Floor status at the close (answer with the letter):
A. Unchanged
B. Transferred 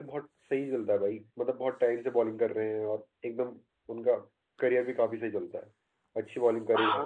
B